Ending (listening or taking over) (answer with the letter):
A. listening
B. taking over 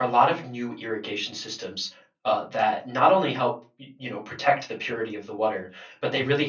A